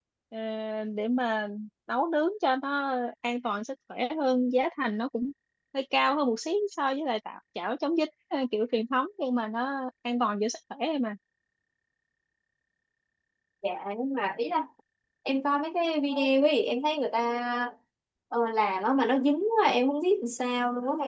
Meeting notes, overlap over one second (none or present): none